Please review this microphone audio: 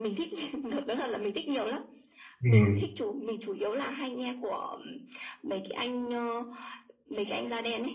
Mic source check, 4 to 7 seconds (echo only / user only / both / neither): echo only